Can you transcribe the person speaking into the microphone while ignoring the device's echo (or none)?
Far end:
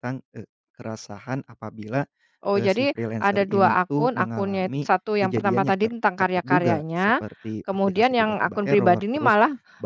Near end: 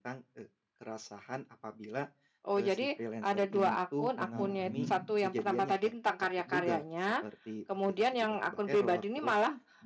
mhm.